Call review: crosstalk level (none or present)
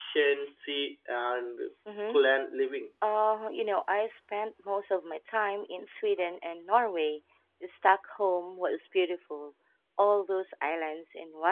none